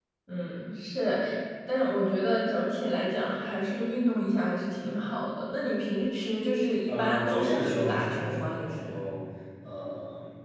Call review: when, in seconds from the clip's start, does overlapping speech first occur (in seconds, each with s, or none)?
6.9 s